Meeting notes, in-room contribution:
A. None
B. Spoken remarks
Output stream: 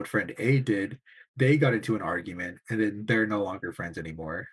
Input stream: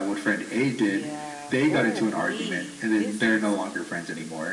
B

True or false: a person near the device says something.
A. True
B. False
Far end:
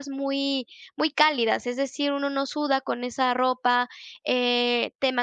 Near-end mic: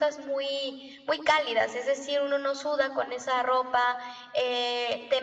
B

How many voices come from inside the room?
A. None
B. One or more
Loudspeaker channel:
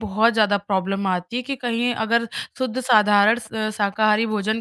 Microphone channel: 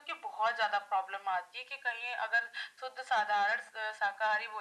A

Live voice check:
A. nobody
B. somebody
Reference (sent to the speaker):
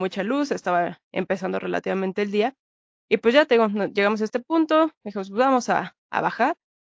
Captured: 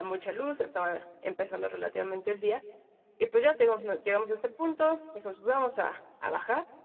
A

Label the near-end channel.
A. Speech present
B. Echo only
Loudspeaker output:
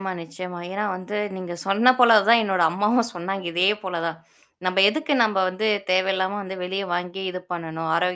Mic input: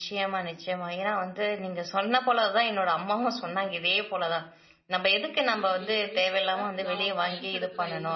A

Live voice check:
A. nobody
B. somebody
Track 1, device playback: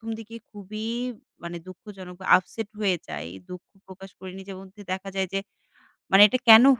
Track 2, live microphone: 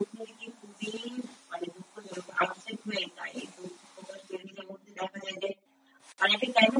A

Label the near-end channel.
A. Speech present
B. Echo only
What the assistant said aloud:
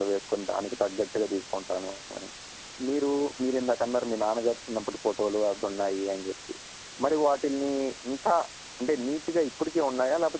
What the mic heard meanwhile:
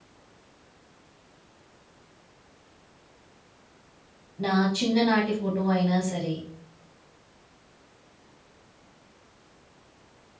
A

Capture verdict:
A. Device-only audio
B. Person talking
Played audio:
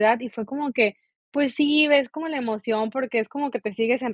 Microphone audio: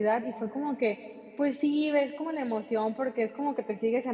A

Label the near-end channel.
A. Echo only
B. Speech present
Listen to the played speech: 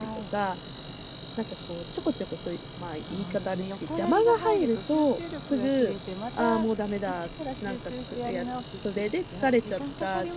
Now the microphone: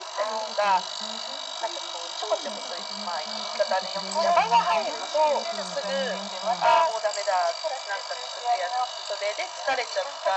B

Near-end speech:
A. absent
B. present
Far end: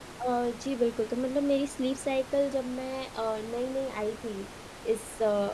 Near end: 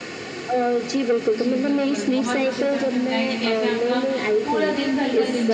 B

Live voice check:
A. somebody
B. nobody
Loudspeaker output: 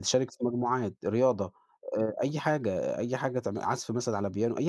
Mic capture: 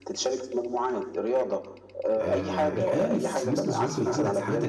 A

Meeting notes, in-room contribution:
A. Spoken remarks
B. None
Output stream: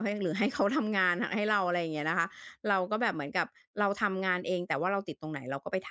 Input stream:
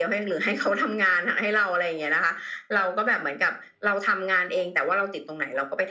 B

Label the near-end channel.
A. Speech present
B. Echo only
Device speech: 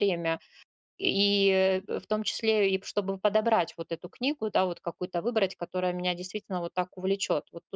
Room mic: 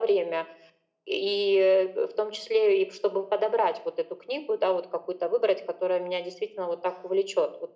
B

